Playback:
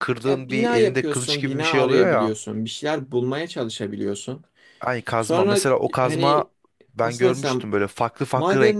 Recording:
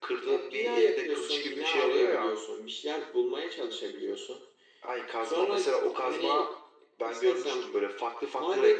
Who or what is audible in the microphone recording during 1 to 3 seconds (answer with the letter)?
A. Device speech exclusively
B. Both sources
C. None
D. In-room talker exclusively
A